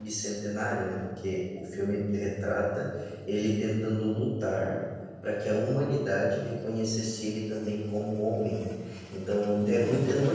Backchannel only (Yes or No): Yes